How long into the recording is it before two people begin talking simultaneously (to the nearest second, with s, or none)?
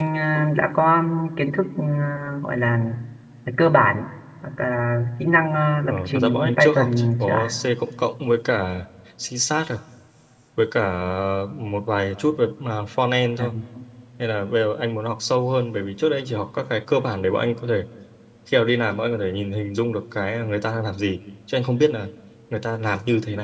6 s